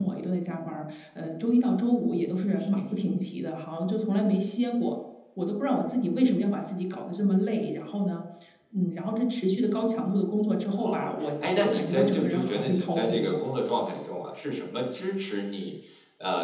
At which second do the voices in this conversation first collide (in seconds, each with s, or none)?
10.8 s